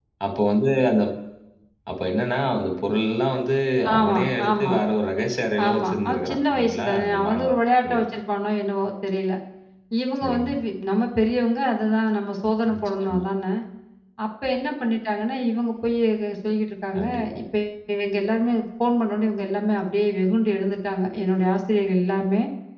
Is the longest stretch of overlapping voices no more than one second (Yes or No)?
No